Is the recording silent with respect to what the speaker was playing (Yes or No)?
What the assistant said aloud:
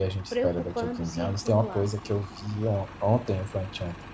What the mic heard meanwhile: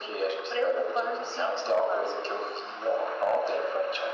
No